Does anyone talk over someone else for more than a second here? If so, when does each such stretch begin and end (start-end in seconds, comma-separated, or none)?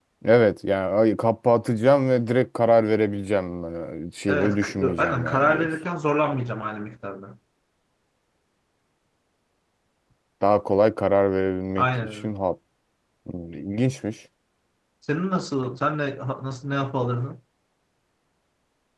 4.3-5.7